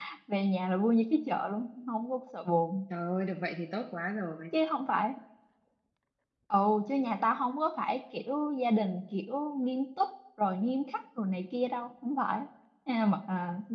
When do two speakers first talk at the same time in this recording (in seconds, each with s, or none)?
none